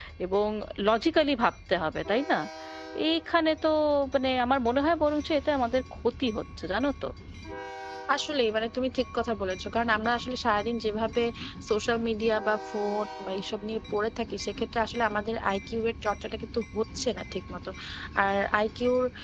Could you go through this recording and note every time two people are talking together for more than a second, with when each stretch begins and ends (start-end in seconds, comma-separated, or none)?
none